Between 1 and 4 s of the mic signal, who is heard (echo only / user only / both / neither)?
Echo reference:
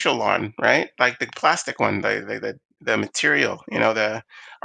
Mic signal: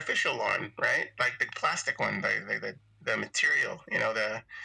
echo only